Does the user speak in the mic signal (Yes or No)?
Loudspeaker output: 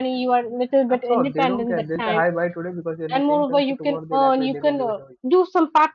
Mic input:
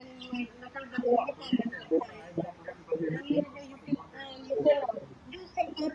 No